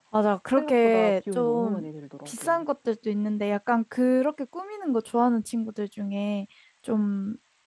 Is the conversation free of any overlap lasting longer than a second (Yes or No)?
No